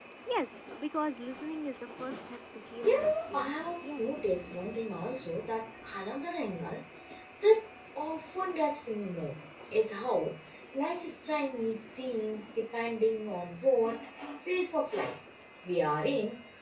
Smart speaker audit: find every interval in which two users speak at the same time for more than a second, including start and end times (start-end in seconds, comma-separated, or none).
2.8-4.4